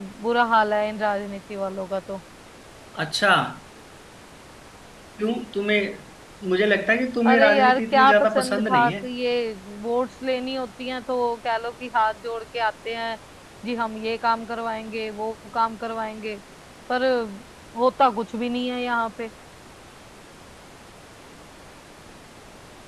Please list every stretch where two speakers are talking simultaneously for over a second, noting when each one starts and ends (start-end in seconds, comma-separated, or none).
7.2-8.9